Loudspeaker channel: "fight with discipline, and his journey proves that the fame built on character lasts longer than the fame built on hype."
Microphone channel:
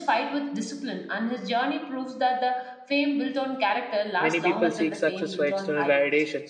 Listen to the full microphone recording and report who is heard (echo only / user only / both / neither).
both